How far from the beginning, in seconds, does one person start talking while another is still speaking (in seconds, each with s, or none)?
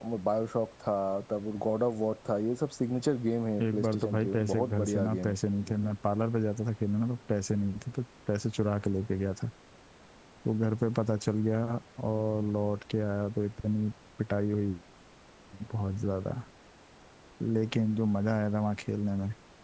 3.6 s